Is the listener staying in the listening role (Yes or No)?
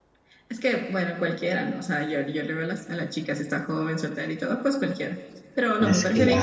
Yes